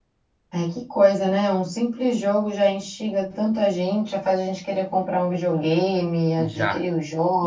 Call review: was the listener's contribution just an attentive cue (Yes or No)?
No